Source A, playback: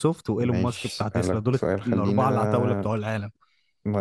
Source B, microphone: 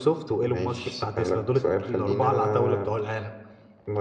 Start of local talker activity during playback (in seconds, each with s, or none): none